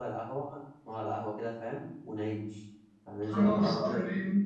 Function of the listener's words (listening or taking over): taking over